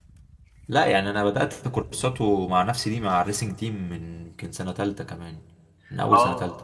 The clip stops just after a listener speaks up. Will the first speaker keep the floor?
No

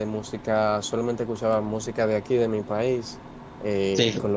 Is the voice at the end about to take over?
No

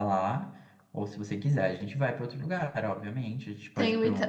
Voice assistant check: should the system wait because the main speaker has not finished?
No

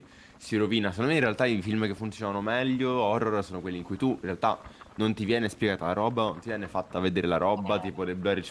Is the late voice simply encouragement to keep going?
Yes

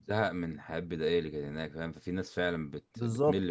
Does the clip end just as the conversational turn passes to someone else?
Yes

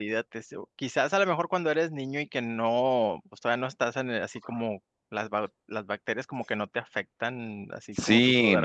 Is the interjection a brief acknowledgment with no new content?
No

